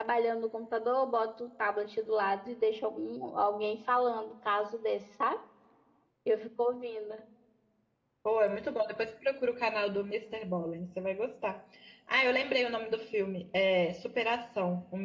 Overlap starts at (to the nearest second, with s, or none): none